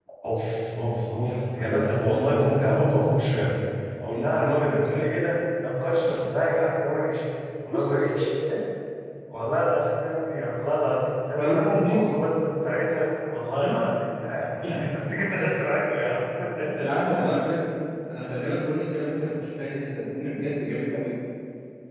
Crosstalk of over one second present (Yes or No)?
Yes